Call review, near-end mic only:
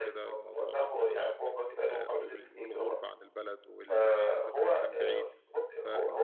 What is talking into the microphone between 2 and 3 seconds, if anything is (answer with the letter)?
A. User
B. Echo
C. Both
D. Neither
C